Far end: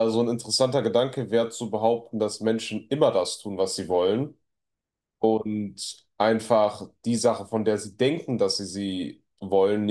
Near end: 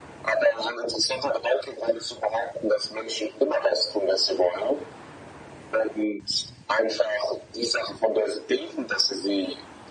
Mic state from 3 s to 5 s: echo only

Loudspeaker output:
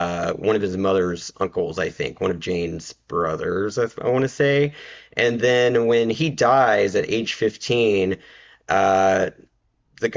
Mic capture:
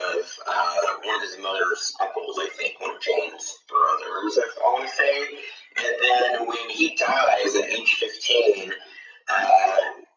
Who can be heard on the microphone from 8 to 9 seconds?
echo only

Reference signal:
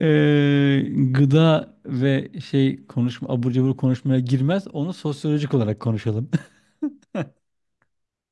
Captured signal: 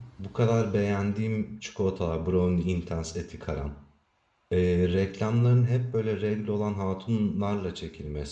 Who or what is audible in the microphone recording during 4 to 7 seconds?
user only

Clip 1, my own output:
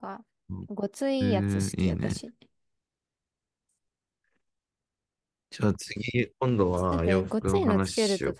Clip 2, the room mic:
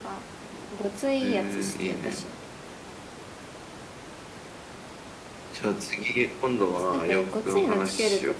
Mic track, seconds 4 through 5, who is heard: neither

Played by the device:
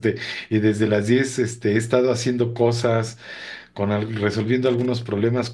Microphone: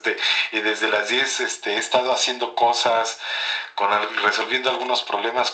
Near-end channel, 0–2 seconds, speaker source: echo only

